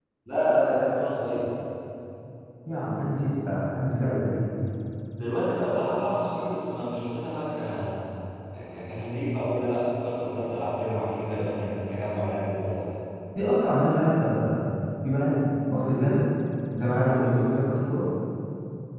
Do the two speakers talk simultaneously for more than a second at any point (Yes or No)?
No